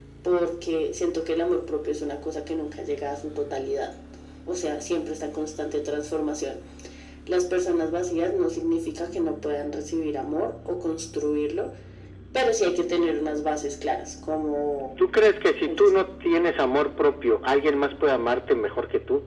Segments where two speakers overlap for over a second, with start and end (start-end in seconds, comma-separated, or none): none